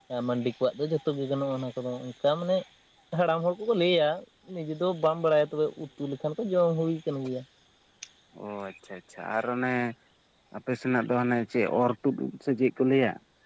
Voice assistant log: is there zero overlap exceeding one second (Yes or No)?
Yes